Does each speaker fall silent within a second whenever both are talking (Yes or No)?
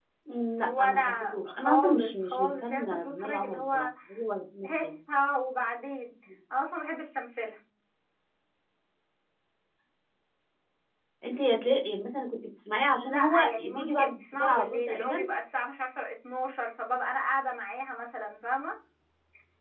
No